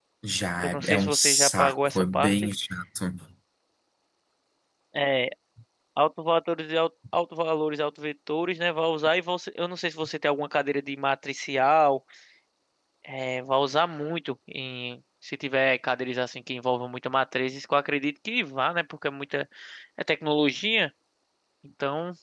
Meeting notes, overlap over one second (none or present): present